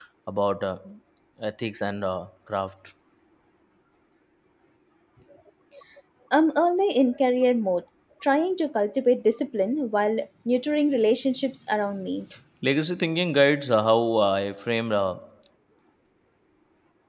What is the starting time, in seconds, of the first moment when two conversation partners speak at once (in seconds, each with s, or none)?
none